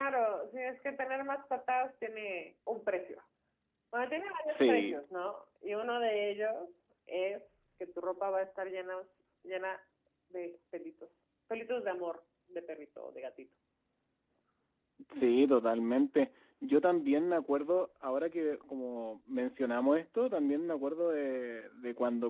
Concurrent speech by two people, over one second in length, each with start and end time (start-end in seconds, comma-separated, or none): none